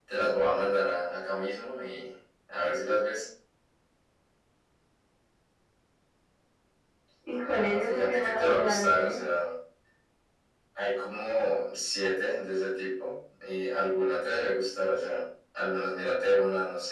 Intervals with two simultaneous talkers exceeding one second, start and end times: 7.5-9.2

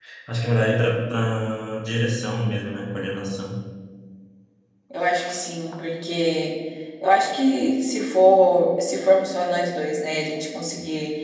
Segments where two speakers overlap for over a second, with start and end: none

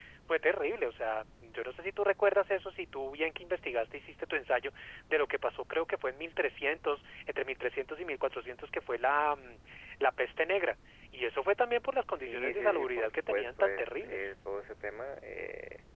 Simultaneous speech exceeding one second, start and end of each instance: 12.2-14.3

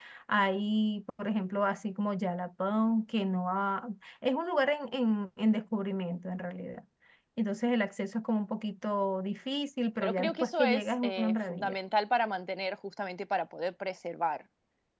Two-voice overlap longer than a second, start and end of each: 10.0-11.7

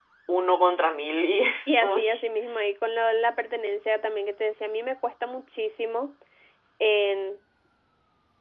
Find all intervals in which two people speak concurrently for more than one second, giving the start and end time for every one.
none

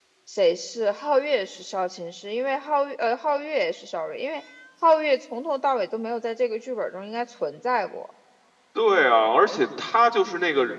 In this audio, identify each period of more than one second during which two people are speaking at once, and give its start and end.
none

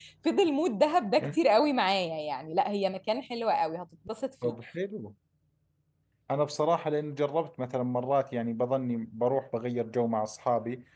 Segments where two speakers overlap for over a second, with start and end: none

